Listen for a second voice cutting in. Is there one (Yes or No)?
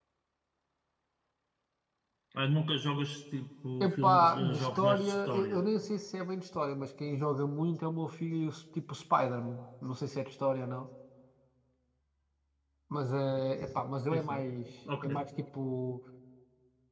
Yes